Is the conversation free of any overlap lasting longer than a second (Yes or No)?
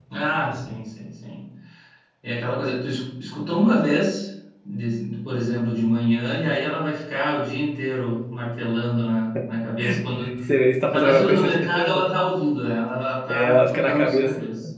No